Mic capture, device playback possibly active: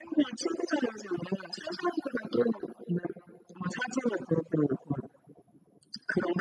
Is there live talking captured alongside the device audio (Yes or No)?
No